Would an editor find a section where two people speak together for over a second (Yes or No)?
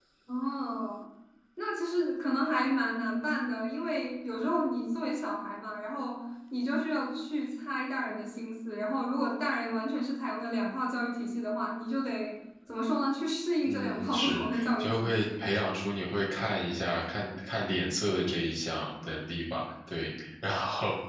Yes